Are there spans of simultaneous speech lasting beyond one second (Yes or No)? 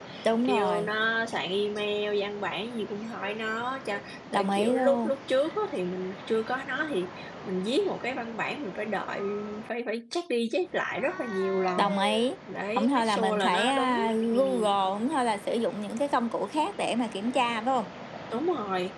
Yes